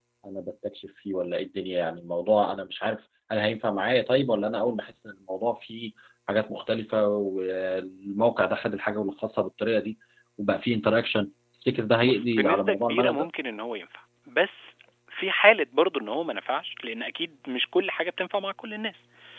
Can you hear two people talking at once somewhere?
Yes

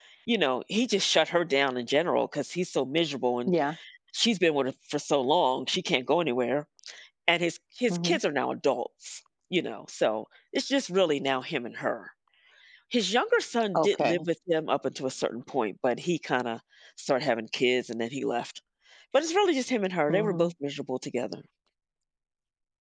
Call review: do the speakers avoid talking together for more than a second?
Yes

